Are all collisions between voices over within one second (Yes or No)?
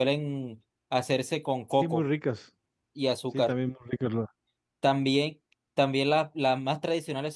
Yes